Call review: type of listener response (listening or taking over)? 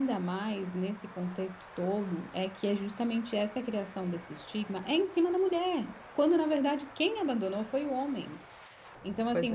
listening